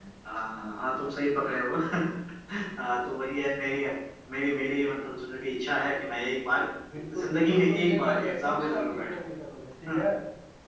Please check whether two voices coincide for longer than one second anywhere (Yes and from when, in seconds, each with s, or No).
Yes, from 7.2 s